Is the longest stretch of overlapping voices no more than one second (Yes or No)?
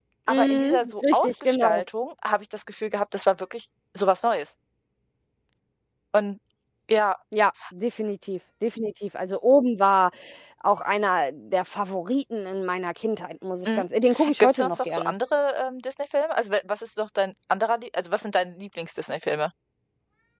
No